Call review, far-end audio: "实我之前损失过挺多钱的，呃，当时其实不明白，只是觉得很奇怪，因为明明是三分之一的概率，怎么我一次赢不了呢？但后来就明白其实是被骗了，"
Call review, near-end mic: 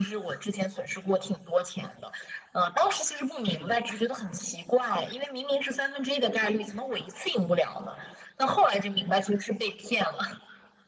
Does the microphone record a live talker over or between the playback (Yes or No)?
Yes